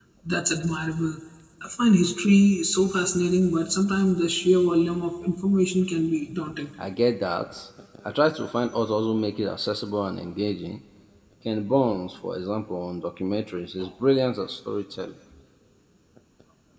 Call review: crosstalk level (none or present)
none